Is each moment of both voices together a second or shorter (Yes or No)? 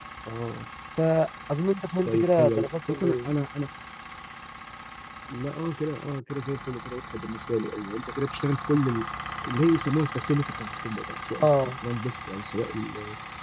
No